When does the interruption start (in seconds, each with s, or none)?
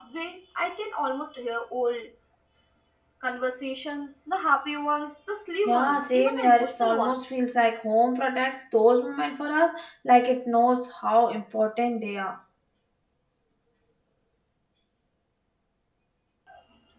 5.7 s